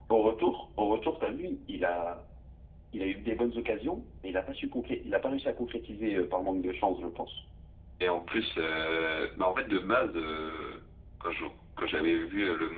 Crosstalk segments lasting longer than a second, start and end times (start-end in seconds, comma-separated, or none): none